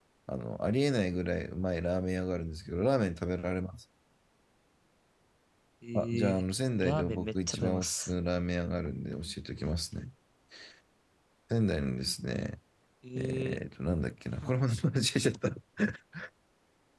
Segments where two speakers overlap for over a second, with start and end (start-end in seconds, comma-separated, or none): 6.8-8.1